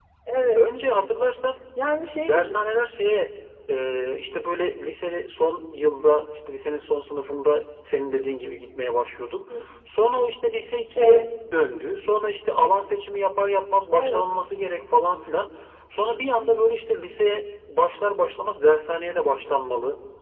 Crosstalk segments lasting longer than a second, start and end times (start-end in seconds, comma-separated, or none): none